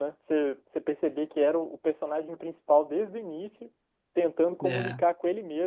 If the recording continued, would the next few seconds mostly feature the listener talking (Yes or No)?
No